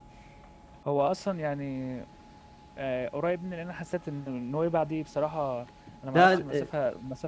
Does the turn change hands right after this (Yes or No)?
No